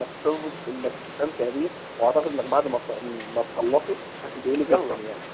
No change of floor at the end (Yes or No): No